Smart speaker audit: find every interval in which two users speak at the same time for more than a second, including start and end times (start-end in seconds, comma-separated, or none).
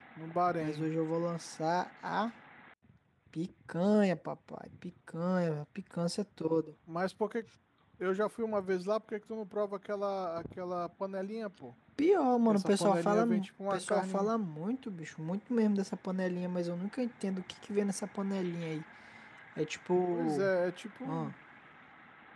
12.5-14.3